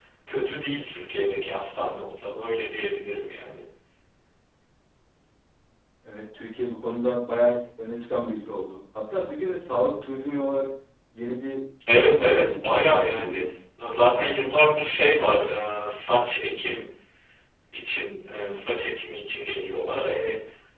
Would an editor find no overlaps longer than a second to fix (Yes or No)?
No